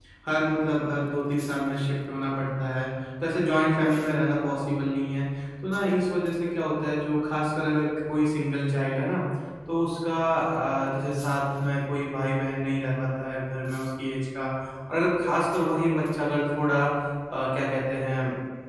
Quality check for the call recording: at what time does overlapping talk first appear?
none

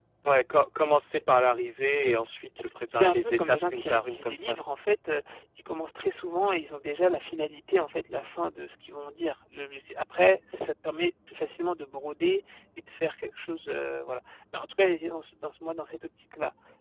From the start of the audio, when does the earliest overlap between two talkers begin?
3.0 s

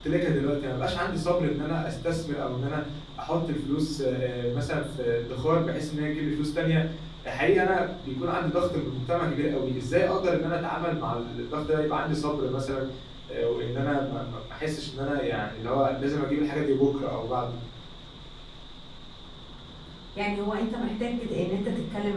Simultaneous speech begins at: none

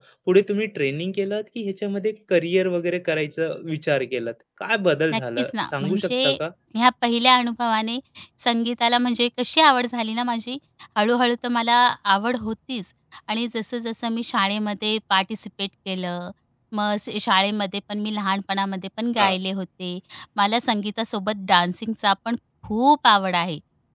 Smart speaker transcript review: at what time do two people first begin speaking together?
5.1 s

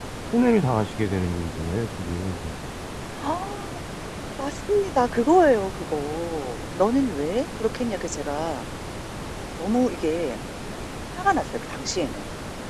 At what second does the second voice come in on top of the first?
none

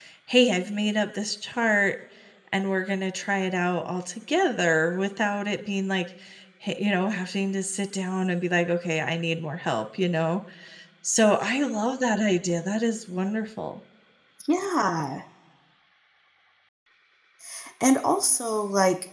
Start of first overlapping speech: none

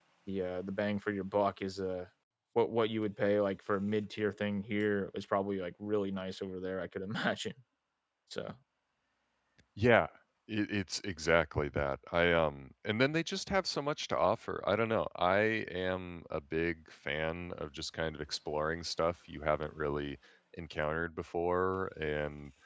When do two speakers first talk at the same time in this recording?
none

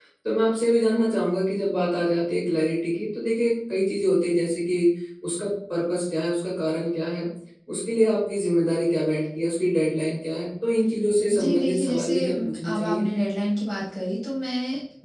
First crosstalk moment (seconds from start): 11.3 s

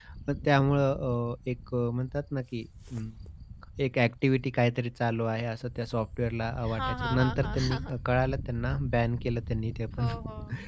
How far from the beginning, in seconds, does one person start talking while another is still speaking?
6.6 s

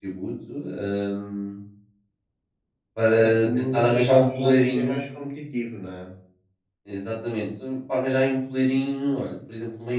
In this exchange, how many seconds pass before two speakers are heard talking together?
3.2 s

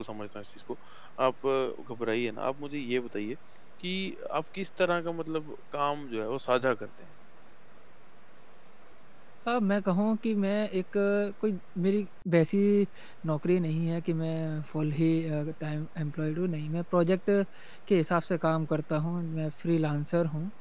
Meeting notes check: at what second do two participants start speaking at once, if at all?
none

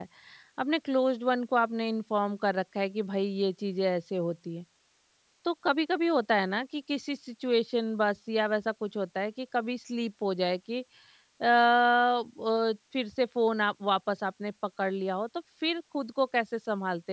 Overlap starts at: none

